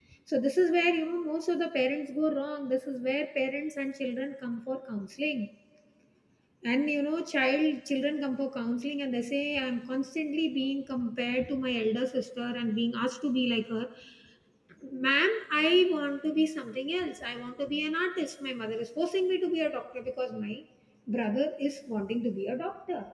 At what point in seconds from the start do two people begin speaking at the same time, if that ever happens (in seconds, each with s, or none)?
none